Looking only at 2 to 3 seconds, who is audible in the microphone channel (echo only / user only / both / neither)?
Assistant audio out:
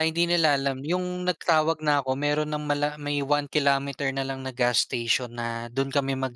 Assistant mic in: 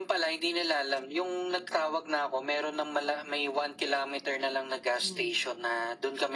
echo only